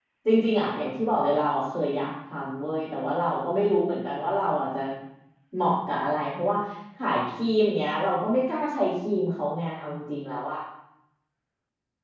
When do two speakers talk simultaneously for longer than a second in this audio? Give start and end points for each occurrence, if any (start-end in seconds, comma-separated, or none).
none